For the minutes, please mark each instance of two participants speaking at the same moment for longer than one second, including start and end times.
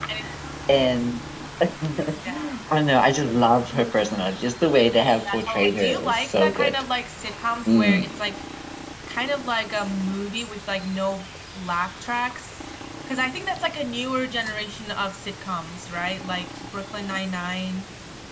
5.1-6.7

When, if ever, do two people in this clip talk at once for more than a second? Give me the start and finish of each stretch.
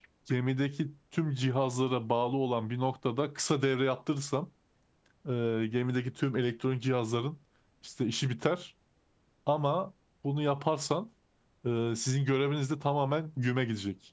none

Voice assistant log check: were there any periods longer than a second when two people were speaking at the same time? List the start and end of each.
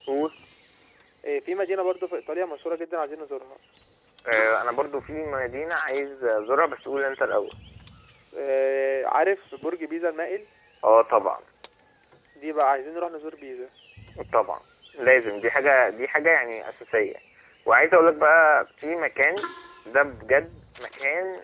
none

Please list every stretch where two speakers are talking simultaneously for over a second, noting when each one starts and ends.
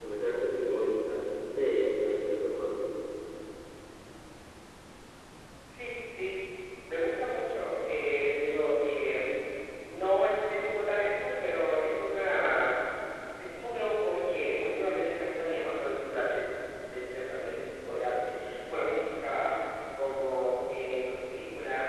none

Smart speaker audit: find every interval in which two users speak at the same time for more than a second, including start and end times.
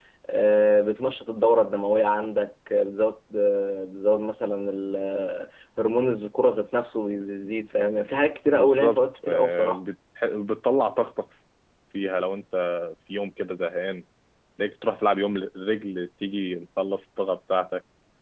8.5-9.8

